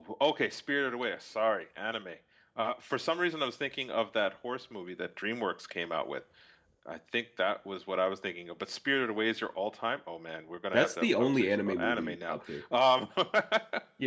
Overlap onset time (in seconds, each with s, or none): 10.7 s